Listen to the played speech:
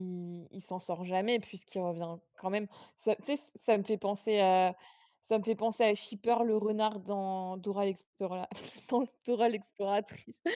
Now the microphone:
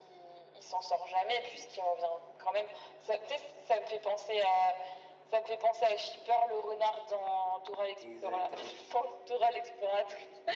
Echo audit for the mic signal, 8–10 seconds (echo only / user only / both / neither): both